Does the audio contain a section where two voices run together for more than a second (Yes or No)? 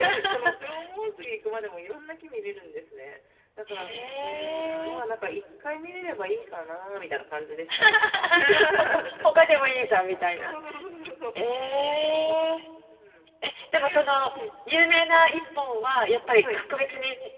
Yes